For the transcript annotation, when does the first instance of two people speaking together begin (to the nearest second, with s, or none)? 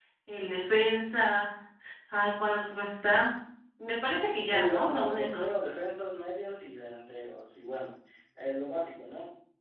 4 s